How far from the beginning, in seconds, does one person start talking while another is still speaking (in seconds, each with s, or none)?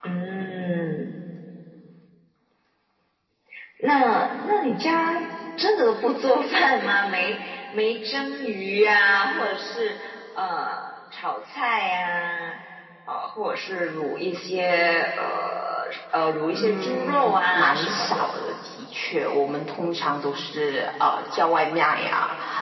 16.5 s